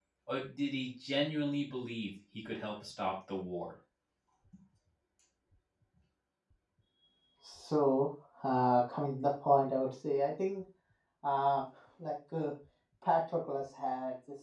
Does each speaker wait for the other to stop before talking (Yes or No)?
Yes